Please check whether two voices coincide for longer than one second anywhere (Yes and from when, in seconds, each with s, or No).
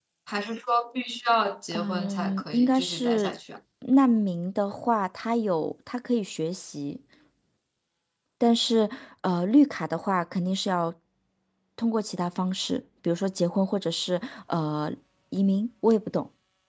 Yes, from 1.7 s